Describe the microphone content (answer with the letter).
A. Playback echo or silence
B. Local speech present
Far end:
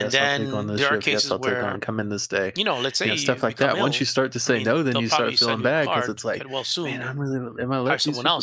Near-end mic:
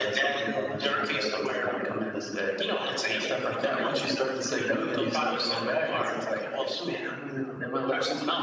A